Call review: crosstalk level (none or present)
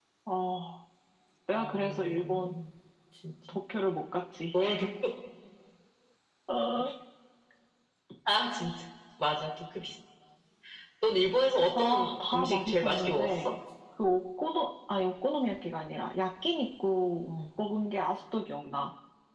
present